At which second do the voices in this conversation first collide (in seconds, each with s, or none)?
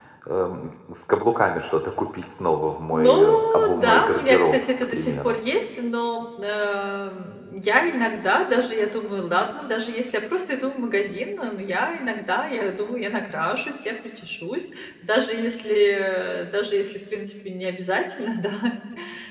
2.9 s